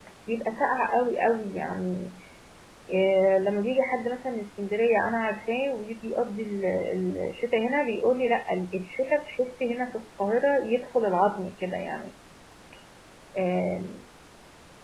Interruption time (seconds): none

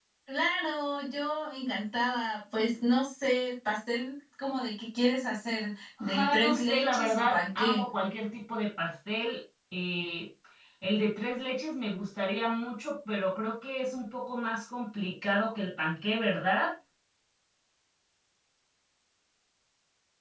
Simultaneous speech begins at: 6 s

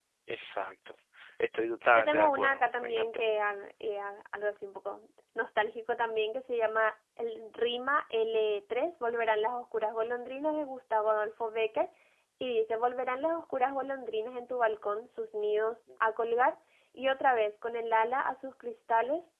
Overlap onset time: 2 s

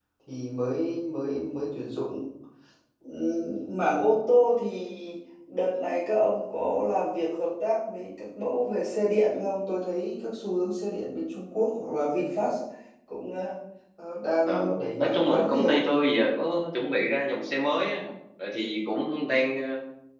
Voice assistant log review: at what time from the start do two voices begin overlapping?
14 s

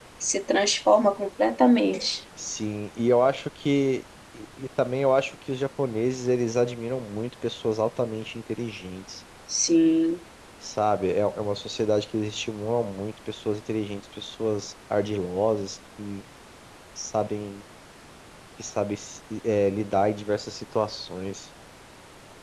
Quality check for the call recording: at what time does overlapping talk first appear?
none

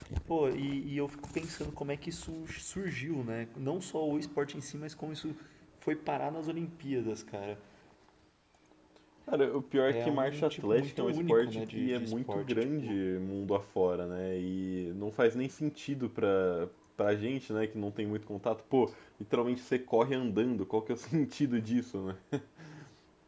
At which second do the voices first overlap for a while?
10 s

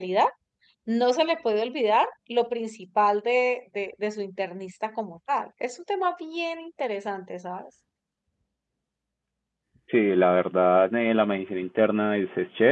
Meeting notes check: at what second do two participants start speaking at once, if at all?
none

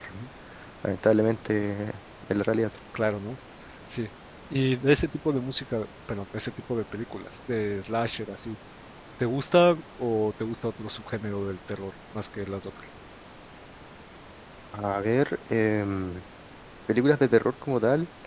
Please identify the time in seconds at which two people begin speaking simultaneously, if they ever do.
none

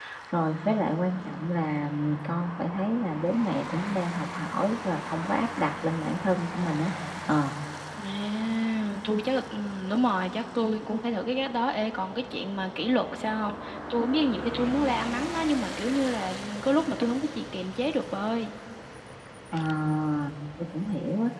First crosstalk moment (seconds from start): none

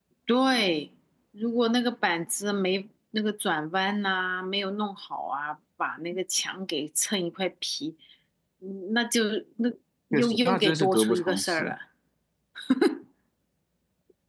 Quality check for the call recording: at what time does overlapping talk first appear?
10 s

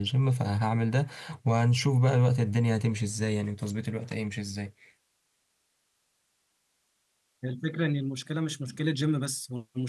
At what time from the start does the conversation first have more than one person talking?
none

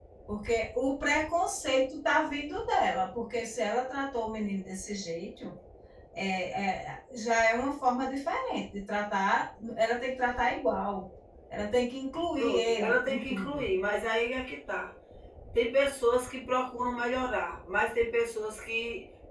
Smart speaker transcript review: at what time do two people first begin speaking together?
12 s

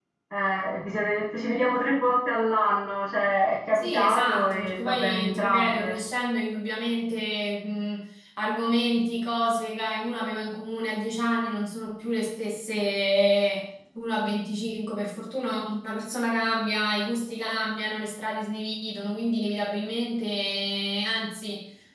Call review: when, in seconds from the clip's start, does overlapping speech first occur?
4 s

